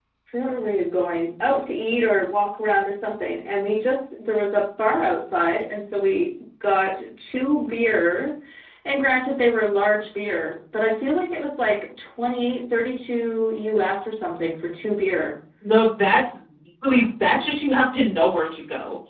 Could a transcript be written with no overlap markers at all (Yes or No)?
Yes